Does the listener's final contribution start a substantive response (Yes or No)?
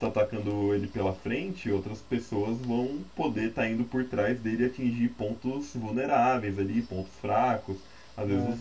No